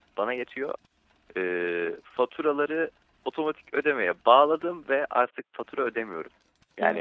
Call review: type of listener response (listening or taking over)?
taking over